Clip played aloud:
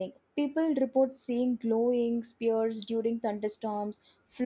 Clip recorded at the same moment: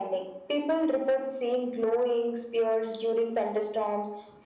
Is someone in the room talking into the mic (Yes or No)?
No